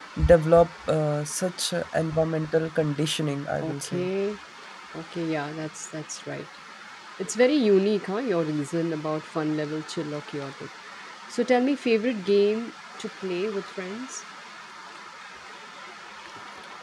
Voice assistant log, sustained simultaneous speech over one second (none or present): none